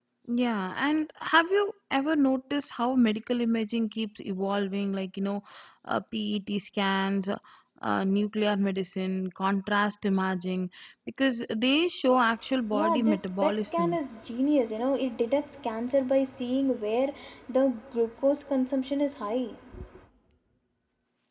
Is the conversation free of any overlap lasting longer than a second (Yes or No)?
No